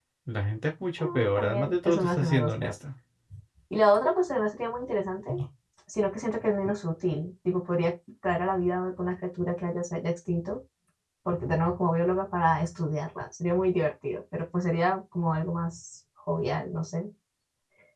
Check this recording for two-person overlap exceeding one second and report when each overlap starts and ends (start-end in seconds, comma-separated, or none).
1.0-2.7